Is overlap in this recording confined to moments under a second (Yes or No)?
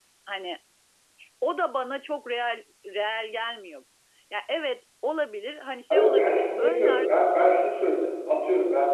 No